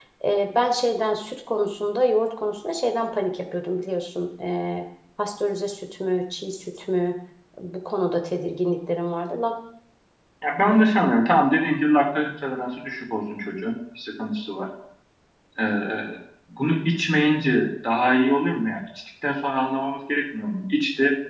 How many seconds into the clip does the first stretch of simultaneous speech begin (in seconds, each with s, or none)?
none